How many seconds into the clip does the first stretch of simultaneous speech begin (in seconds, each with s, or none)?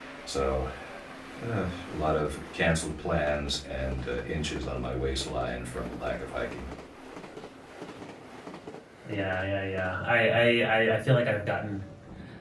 none